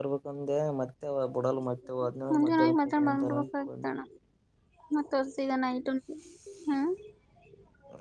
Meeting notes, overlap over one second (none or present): present